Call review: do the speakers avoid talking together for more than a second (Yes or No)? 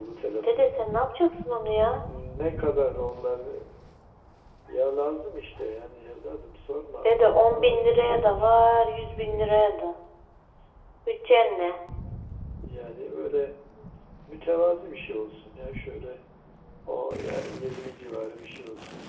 No